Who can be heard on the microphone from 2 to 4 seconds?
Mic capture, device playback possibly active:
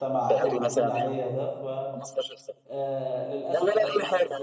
both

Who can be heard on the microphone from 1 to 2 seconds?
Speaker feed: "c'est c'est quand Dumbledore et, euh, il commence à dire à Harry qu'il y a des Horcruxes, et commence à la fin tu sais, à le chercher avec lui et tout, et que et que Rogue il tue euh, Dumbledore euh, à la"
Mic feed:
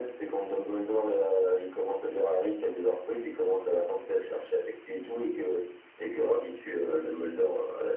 echo only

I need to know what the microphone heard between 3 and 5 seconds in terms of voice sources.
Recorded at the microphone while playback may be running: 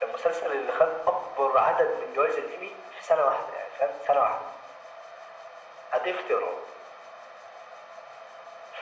echo only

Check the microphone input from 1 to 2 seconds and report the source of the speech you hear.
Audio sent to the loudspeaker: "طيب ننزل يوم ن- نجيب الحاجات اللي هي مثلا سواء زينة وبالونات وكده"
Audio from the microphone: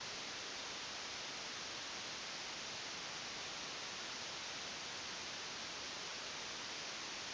neither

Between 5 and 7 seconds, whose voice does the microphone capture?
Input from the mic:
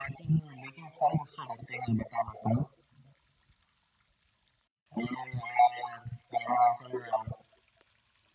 echo only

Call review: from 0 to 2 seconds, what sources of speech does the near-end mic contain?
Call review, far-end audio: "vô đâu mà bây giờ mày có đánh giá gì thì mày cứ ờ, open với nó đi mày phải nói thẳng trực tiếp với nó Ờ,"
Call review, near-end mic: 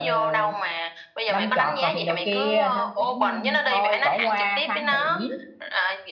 both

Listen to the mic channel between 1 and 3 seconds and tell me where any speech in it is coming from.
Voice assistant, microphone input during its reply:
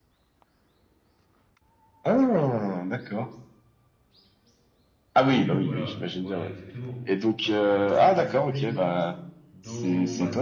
echo only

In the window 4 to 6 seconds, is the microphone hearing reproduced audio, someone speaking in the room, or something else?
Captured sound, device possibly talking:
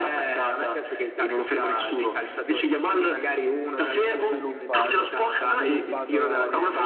both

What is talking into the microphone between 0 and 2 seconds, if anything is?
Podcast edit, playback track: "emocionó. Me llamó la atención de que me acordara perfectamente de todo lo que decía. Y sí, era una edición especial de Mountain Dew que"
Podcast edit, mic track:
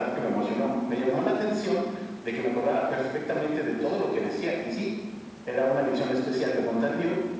echo only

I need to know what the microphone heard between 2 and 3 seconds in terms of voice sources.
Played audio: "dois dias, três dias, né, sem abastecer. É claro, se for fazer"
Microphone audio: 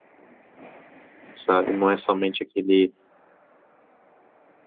user only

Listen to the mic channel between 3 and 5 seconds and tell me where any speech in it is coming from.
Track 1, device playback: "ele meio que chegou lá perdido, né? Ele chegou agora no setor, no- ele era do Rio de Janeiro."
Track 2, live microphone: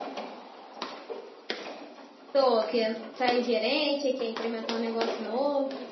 user only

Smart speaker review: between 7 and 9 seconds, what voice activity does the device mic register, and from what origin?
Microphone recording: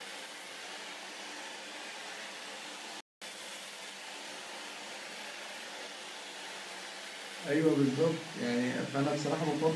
user only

